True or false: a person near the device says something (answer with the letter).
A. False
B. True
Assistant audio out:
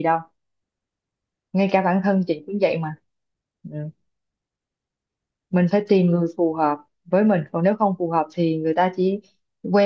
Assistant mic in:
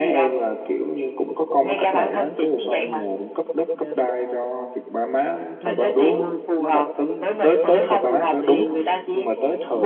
B